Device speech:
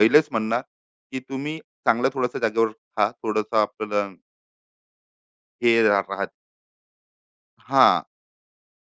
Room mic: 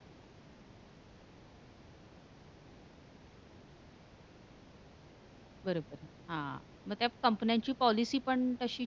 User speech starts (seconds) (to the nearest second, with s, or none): 6 s